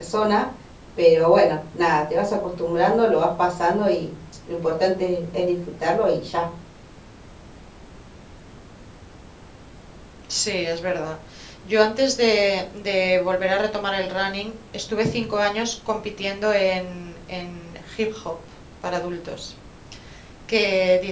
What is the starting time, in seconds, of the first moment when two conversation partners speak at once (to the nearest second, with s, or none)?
none